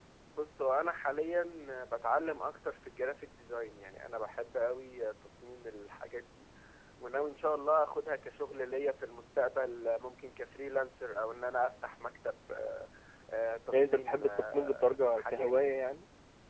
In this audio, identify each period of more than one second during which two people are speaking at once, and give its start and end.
13.7-15.7

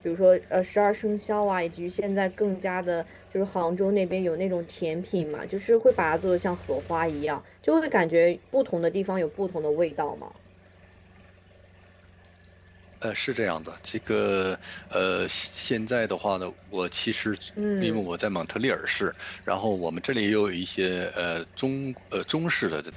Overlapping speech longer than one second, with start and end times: none

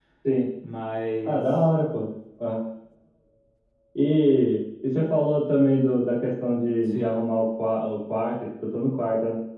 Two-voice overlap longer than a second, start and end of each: none

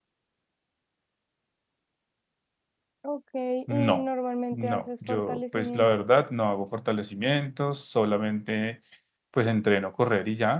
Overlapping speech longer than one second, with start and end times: 4.5-6.0

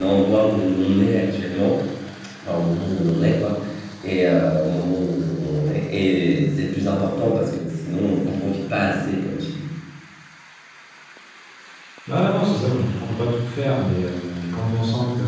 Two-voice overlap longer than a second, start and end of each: none

